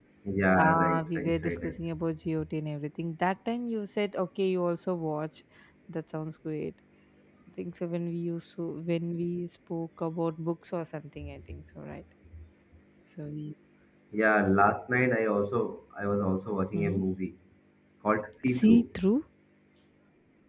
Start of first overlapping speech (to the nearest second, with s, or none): 1 s